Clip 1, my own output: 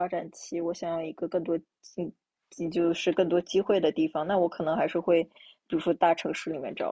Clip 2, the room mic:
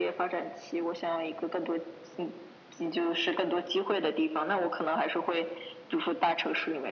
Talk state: echo only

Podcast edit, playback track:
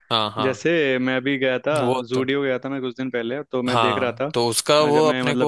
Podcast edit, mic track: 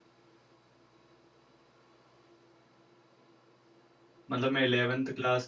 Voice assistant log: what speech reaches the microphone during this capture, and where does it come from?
user only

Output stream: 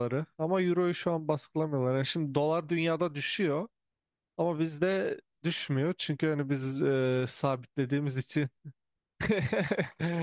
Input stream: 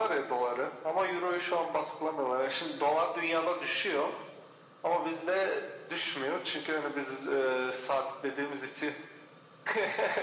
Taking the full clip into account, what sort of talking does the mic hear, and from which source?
echo only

